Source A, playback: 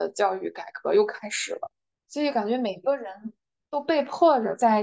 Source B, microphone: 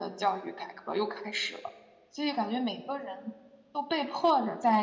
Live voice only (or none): none